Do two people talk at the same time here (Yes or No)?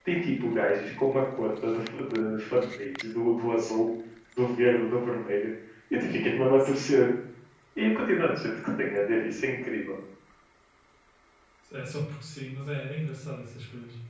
No